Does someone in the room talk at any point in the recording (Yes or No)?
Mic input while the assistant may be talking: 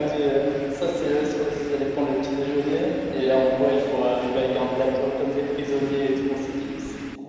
No